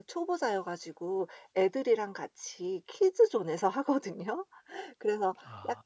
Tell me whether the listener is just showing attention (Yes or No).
Yes